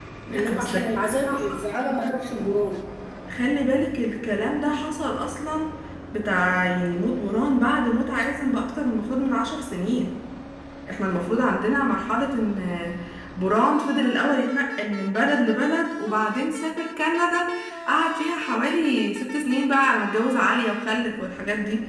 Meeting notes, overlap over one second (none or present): present